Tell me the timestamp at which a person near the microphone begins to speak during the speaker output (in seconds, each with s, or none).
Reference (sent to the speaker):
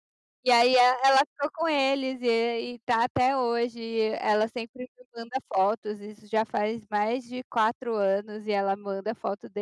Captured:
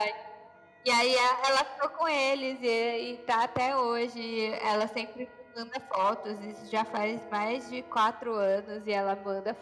none